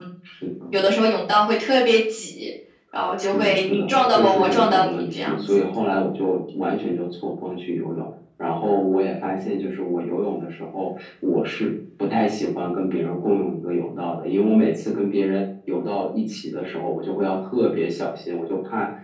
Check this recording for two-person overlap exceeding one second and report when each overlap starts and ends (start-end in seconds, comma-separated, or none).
3.2-5.5